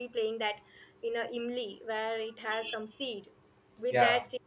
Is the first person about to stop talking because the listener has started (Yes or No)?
No